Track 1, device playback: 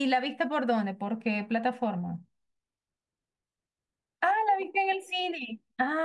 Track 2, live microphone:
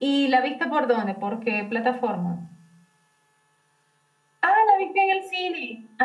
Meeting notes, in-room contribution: none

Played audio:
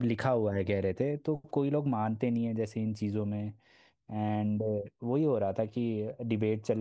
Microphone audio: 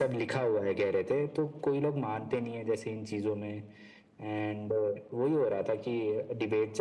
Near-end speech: none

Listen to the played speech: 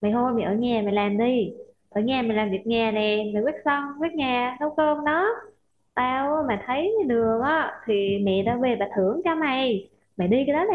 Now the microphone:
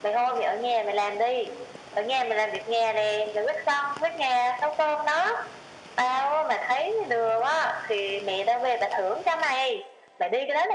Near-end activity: none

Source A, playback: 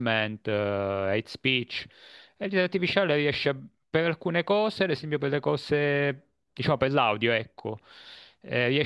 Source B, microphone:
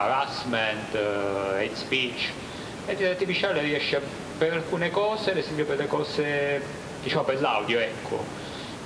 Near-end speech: none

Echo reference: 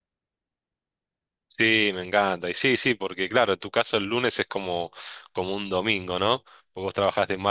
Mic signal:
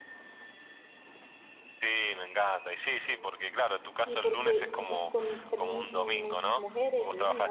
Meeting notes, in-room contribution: present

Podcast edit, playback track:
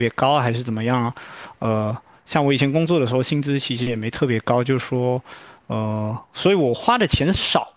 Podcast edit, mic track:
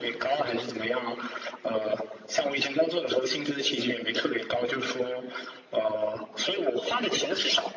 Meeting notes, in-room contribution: none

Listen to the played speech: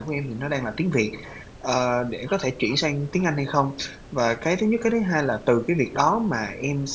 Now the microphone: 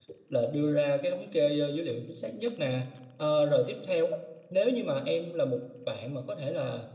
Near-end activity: present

